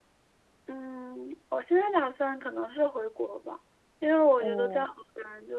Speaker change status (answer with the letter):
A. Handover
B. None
B